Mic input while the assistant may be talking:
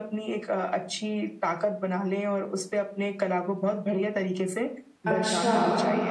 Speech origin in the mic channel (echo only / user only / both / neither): both